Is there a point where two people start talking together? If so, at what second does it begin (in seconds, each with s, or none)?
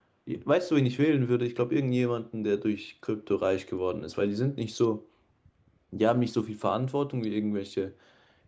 none